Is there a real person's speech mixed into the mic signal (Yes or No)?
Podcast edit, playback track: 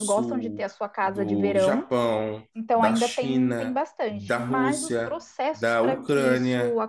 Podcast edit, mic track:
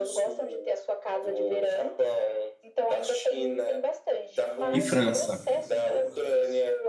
Yes